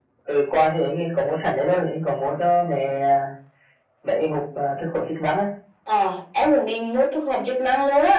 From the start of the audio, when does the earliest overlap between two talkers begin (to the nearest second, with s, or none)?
none